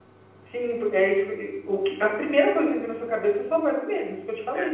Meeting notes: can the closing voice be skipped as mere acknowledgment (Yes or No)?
Yes